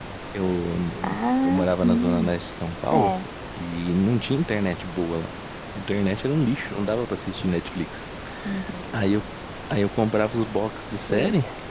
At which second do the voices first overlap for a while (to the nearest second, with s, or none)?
1 s